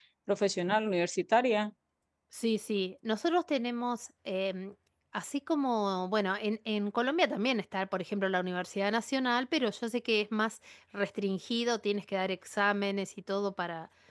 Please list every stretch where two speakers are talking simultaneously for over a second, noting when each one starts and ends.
none

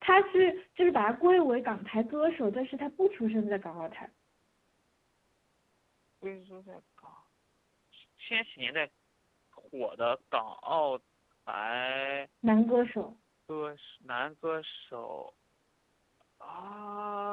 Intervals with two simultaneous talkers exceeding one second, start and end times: none

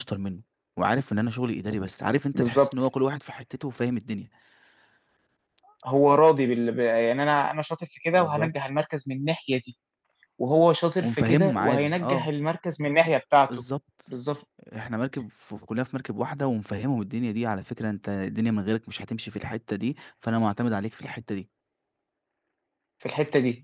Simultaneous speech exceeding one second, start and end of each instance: 11.0-12.3

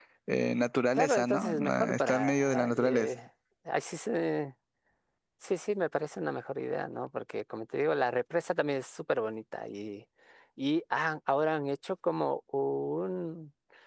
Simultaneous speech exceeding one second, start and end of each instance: 1.0-3.1

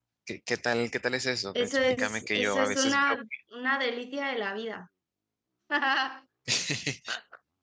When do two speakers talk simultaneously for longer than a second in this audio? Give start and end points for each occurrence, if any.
1.6-3.2

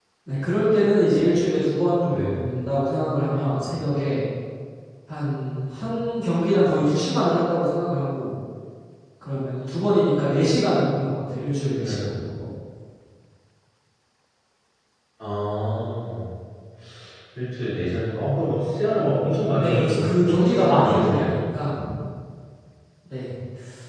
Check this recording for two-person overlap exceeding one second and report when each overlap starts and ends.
19.6-21.4

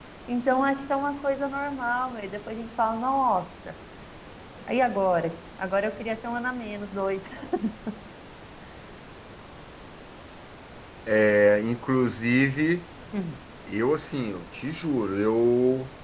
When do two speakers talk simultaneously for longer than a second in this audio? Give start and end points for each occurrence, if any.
none

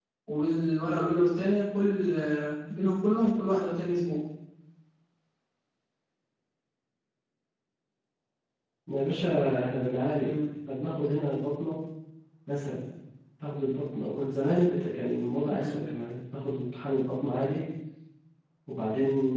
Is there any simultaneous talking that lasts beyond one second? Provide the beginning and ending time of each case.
none

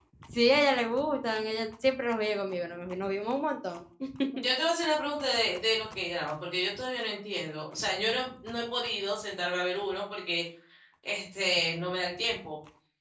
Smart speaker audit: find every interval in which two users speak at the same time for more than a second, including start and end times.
none

